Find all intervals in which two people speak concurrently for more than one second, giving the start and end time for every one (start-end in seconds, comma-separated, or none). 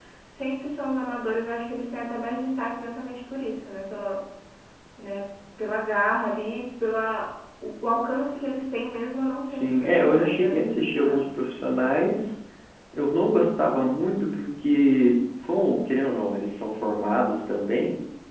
9.5-11.2